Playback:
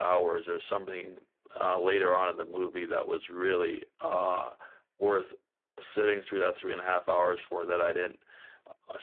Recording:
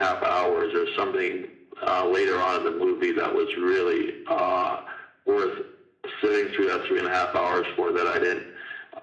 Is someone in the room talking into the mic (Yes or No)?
No